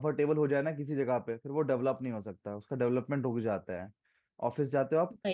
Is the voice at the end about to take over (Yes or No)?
No